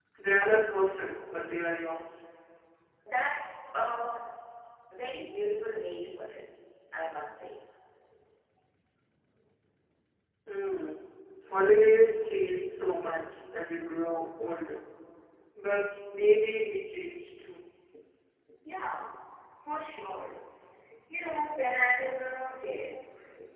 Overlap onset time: none

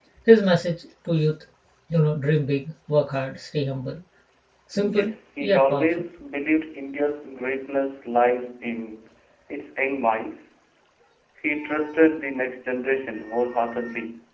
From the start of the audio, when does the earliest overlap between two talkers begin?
5 s

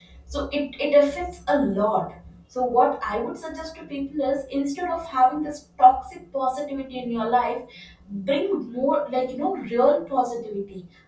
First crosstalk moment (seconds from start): none

